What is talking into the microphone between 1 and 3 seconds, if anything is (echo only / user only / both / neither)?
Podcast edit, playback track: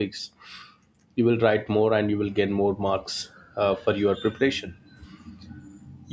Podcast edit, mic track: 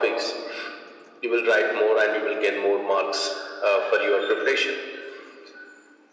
echo only